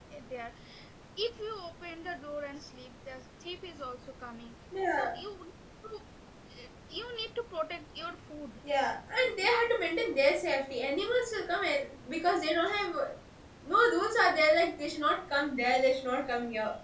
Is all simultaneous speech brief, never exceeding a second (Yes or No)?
Yes